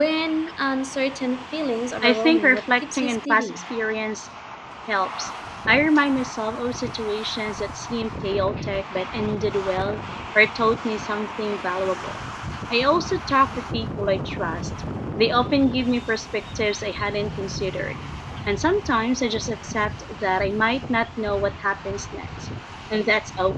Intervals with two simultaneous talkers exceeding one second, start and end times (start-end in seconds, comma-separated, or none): 2.0-3.6